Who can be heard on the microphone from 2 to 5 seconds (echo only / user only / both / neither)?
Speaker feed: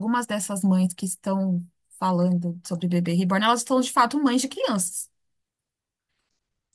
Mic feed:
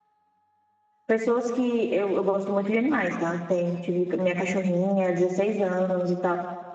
user only